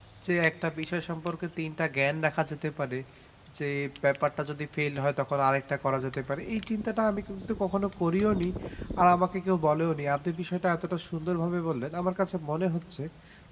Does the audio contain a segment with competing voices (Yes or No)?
No